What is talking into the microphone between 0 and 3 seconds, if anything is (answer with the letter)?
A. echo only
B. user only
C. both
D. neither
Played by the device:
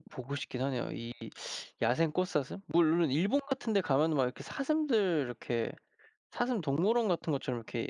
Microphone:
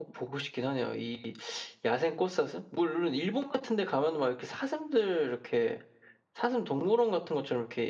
A